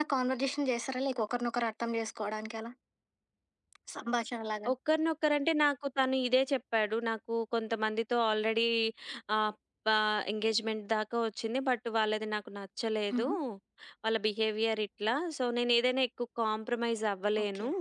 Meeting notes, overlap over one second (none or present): none